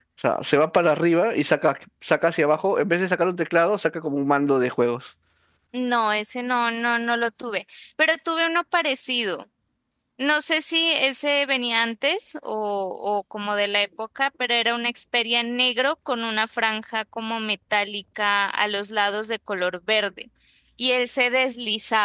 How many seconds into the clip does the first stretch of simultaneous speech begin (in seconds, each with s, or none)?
none